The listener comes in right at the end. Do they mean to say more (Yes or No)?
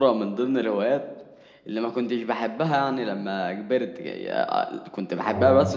No